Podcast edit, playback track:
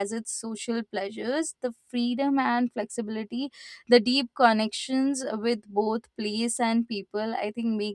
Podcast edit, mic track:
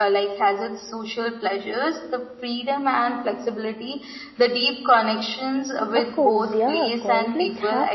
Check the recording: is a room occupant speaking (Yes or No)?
Yes